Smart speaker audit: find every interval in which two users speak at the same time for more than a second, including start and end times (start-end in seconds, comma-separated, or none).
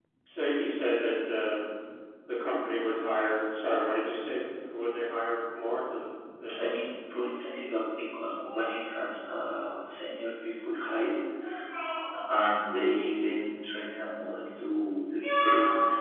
none